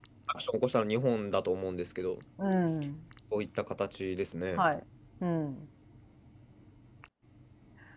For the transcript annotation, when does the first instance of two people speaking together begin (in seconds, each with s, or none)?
none